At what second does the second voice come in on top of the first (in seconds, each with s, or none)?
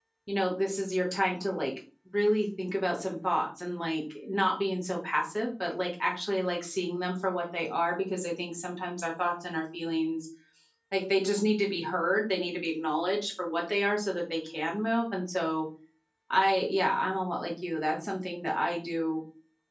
none